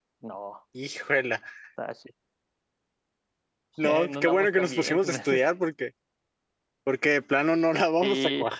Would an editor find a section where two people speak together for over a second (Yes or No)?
Yes